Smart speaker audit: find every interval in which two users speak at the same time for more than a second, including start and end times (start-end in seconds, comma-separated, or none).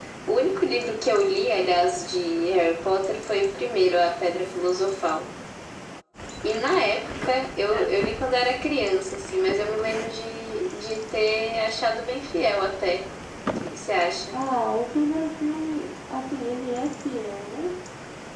none